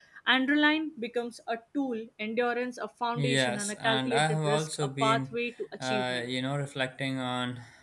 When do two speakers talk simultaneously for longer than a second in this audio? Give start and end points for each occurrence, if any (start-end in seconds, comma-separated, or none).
3.4-5.4